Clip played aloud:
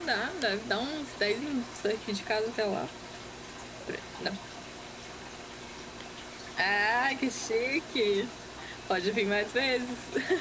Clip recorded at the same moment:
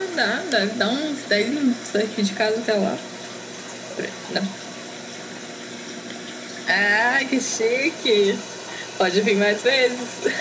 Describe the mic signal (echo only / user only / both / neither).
echo only